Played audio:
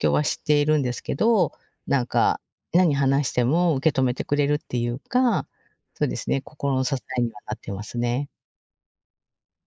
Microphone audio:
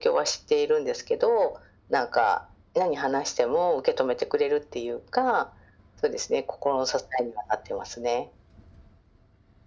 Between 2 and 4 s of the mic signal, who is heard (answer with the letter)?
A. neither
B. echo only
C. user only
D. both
B